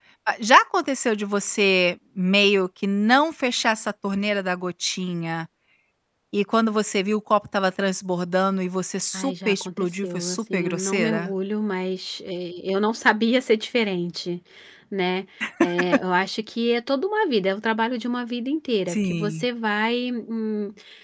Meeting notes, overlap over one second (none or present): present